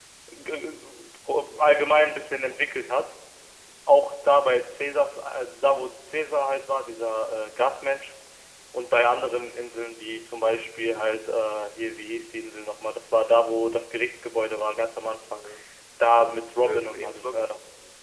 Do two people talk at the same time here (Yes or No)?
Yes